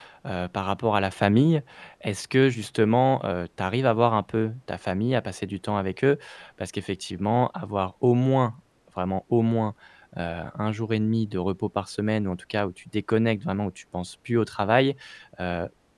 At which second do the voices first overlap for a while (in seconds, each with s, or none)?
none